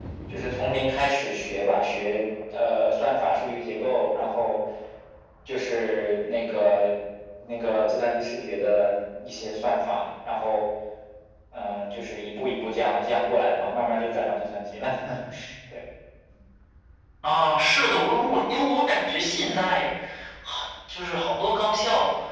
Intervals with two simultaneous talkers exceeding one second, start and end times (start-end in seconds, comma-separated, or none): none